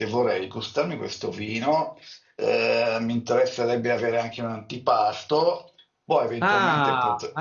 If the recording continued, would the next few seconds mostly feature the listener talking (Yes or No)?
Yes